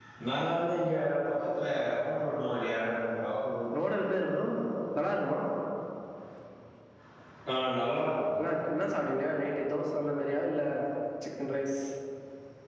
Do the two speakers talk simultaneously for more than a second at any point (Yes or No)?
No